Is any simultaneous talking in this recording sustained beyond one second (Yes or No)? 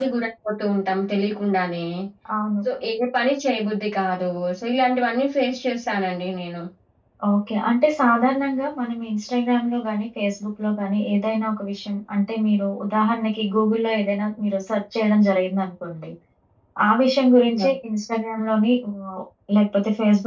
No